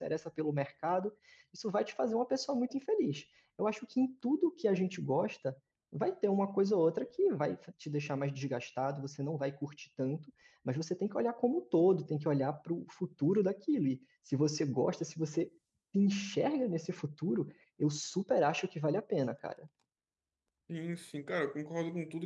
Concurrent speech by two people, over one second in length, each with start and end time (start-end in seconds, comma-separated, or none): none